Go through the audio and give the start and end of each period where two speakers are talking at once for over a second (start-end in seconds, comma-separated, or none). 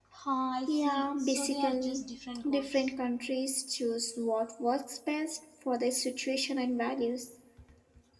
0.7-2.1